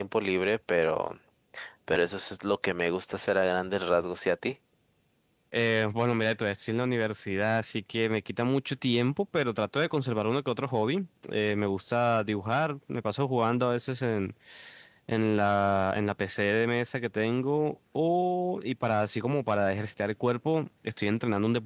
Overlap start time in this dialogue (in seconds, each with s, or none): none